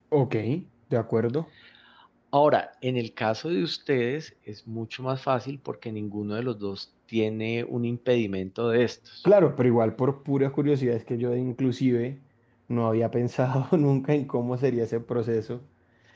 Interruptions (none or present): none